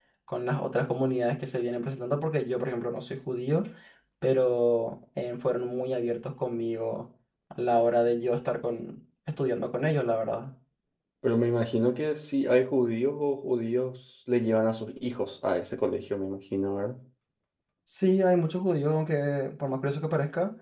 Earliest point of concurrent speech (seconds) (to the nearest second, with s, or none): none